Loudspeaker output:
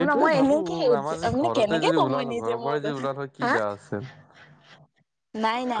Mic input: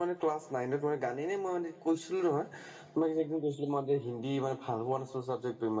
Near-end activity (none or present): present